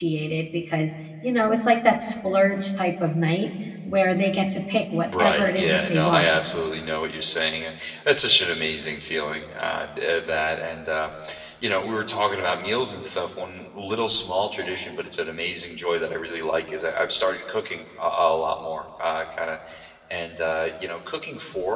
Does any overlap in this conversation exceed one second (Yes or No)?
Yes